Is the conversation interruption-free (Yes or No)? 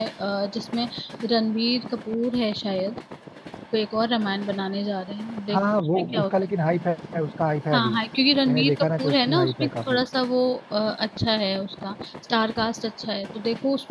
No